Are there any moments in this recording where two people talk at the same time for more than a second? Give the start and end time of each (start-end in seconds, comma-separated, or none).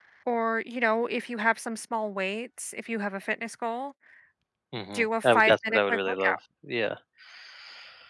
4.9-6.4